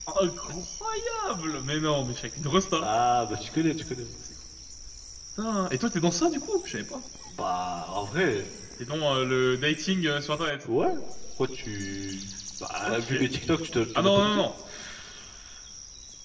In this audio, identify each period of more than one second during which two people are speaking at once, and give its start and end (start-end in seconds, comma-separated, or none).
none